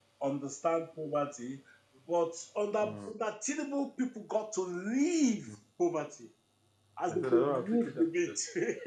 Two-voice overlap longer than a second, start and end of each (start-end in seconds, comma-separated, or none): 7.1-8.3